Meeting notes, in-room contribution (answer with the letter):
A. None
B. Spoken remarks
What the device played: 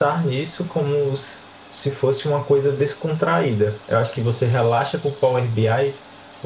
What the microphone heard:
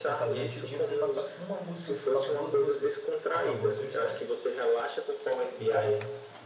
B